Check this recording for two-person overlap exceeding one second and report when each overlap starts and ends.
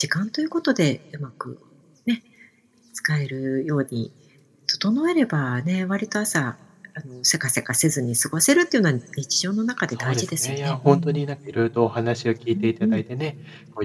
10.0-11.3

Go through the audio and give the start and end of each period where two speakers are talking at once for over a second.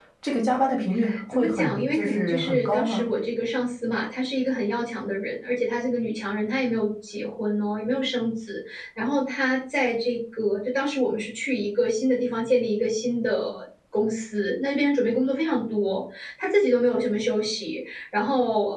1.3-3.0

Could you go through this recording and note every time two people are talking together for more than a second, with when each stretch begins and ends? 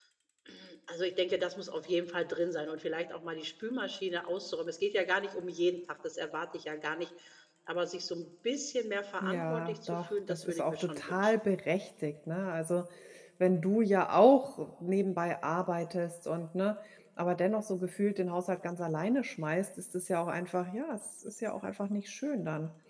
9.2-11.3

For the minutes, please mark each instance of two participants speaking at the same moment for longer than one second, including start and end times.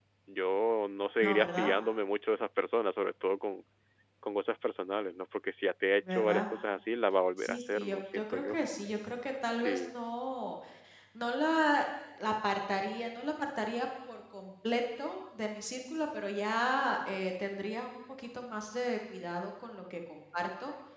7.4-8.6

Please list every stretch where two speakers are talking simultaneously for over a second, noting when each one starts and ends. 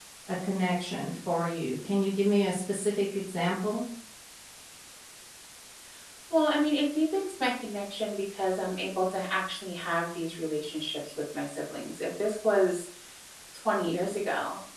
none

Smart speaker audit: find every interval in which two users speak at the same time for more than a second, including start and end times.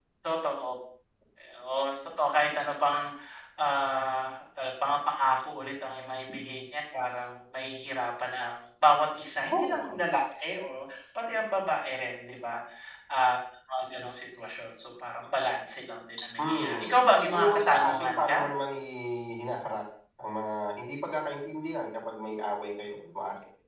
16.5-18.4

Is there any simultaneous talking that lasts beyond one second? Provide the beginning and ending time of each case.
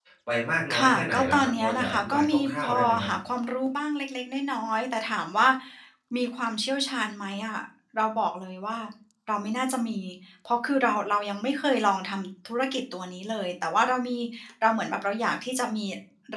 0.8-3.1

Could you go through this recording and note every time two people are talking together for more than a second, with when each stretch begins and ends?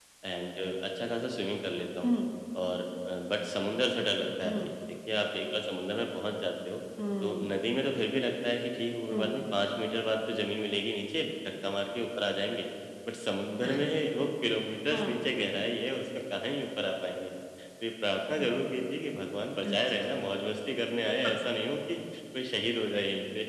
none

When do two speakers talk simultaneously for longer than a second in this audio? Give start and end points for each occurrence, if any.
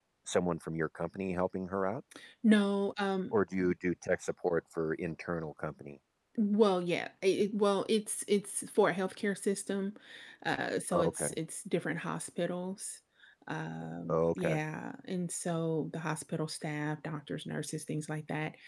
none

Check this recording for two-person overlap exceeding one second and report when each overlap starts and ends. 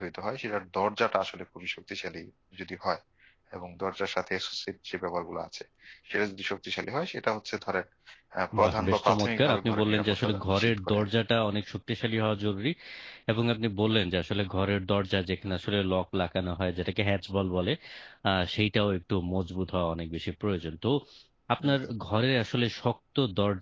8.6-11.1

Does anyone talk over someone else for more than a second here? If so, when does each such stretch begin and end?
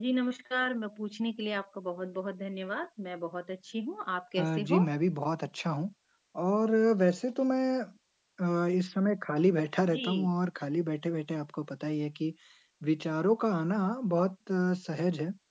none

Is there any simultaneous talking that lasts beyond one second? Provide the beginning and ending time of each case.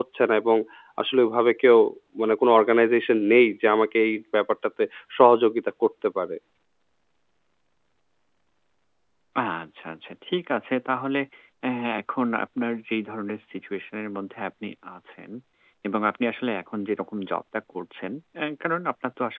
none

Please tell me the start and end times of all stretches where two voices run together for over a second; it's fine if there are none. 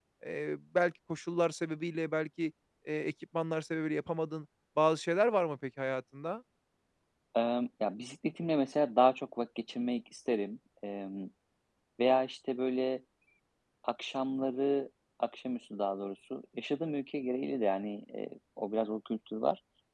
none

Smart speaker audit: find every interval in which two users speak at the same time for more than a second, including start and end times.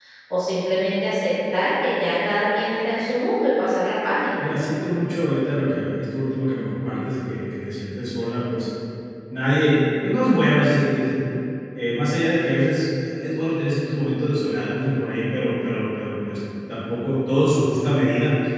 none

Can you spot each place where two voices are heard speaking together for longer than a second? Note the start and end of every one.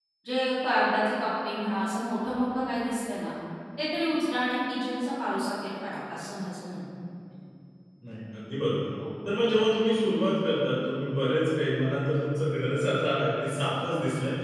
none

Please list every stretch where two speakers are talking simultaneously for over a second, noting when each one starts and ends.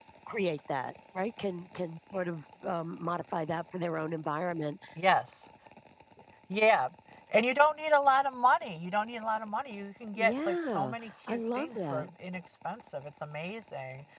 10.2-12.1

